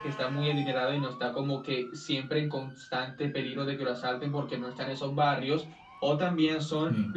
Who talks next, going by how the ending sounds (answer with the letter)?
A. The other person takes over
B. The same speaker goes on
B